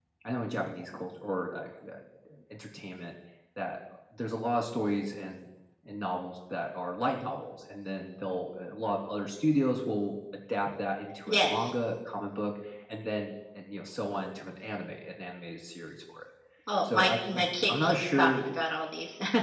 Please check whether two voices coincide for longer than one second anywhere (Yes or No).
Yes